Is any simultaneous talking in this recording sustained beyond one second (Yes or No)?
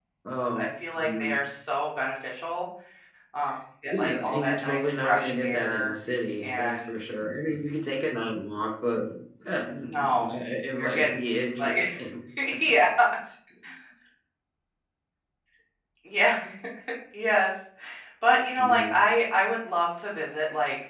Yes